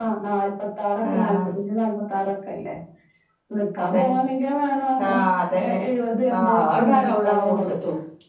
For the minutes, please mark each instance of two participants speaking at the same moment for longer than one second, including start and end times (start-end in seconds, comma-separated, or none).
6.4-7.7